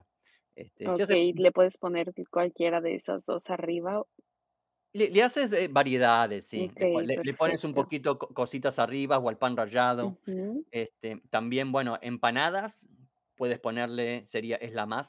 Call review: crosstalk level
present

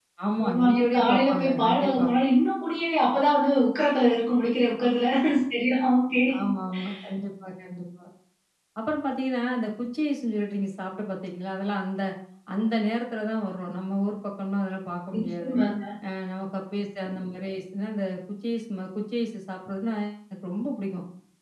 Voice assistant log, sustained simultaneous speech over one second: present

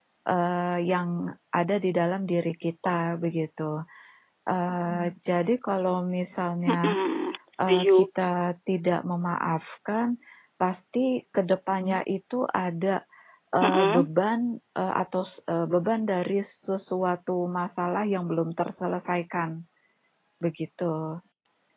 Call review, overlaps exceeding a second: none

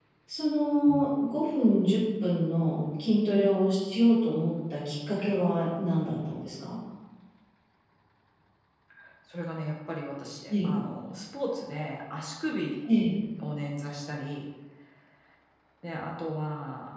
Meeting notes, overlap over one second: none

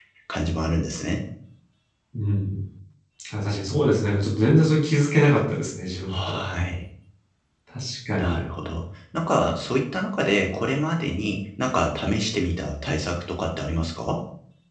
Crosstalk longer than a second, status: none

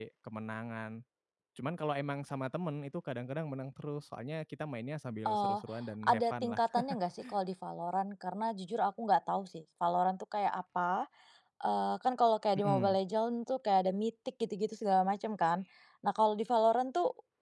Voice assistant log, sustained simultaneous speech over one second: none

